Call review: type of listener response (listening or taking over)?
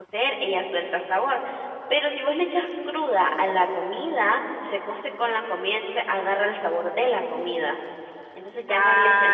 taking over